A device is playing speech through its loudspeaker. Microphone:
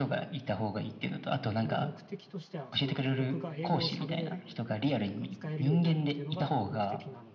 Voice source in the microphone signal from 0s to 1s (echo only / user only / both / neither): echo only